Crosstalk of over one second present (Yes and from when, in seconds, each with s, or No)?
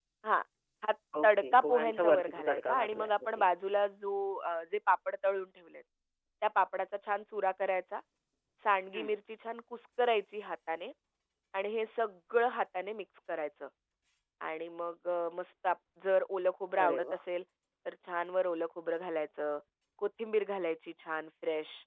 Yes, from 1.2 s